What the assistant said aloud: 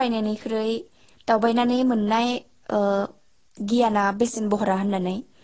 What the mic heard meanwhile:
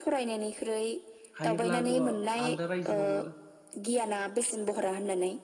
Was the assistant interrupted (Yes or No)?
Yes